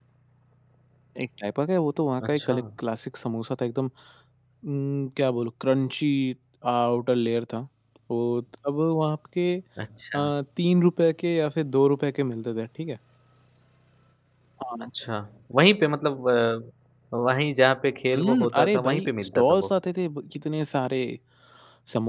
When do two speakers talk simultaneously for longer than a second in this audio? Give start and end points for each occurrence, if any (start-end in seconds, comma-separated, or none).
18.1-19.7